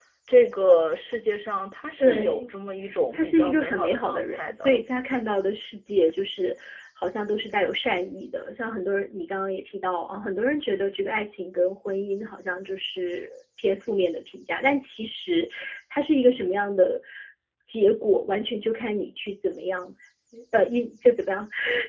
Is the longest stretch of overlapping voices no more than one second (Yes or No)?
No